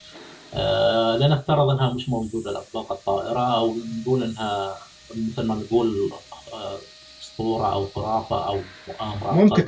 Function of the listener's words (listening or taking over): taking over